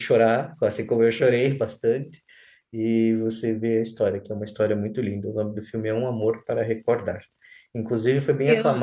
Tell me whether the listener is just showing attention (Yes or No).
Yes